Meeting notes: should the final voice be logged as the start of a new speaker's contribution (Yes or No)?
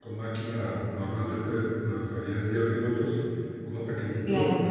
No